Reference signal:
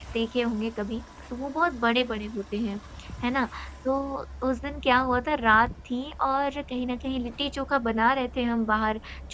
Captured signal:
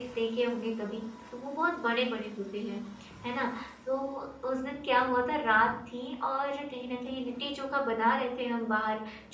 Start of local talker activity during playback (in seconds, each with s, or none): none